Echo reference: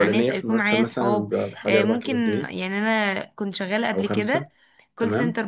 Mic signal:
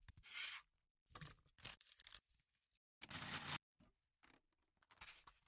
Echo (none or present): none